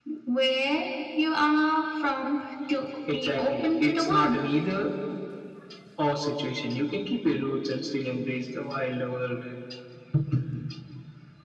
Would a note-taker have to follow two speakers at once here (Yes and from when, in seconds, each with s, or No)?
Yes, from 3.1 s